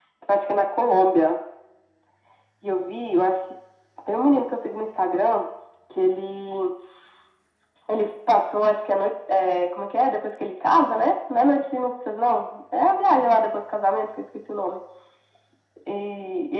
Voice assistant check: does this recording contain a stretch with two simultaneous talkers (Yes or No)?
No